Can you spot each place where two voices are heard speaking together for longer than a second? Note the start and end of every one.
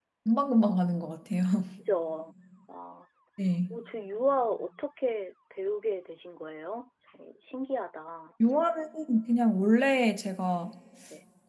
none

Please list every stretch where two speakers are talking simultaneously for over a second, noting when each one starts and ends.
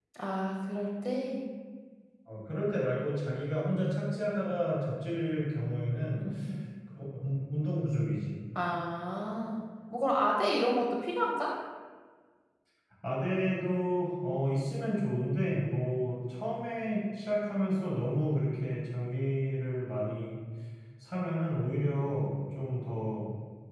none

